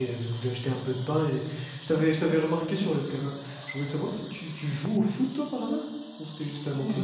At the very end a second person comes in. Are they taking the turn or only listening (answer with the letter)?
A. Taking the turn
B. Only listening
A